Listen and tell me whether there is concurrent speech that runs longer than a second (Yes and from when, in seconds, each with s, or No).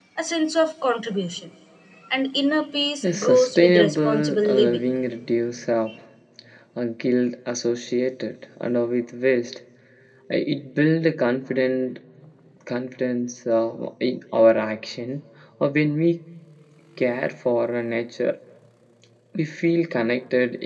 Yes, from 3.0 s